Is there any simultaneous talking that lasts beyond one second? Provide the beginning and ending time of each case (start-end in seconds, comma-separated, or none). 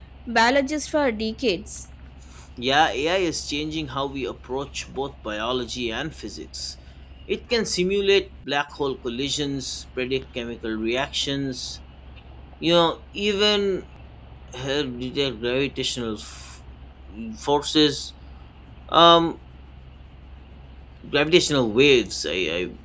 none